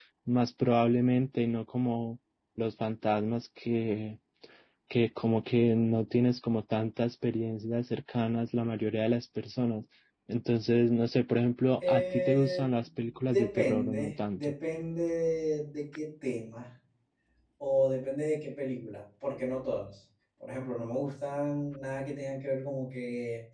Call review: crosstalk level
present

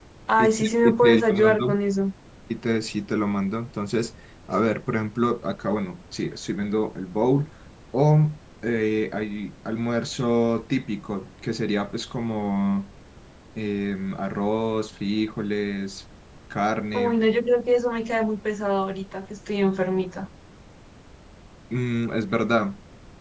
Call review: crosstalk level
present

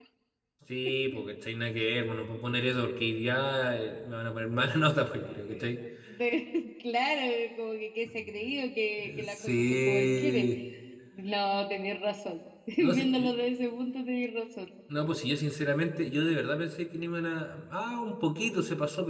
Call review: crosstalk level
present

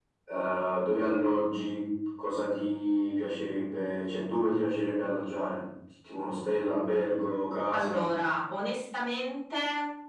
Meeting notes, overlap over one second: none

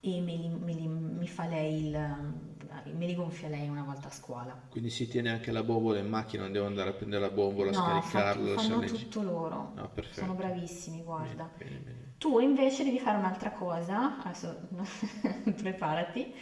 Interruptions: present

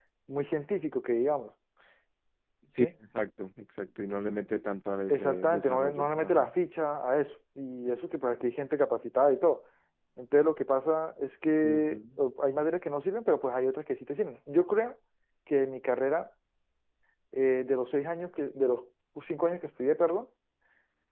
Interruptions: present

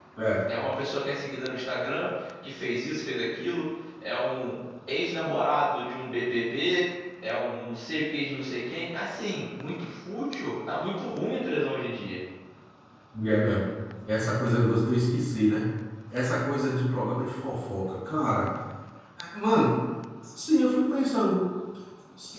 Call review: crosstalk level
none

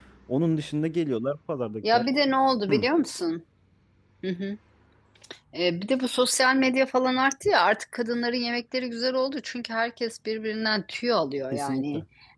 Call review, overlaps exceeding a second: none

